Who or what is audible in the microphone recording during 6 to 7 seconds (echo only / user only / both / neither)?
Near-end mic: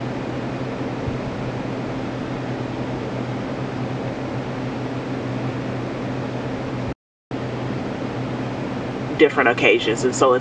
neither